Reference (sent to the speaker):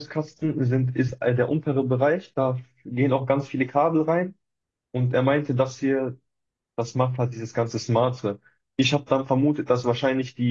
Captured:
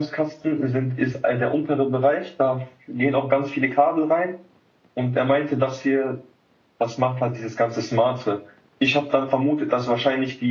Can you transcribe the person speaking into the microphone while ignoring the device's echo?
none

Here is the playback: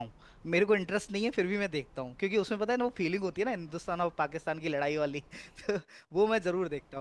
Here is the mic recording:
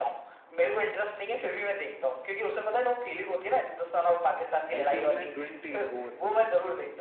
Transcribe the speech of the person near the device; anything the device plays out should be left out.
आईपीएल में ट्वेंटी ओवर्स होते हैं

